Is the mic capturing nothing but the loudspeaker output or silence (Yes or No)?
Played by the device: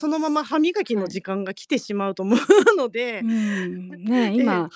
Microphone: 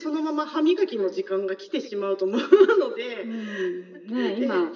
Yes